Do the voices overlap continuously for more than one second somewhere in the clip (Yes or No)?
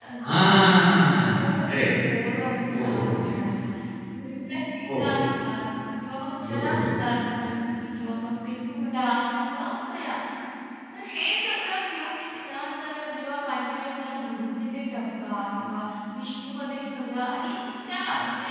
No